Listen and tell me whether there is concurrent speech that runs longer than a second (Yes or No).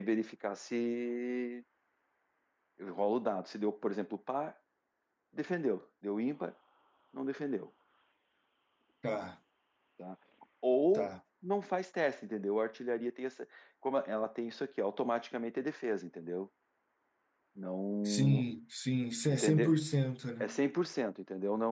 No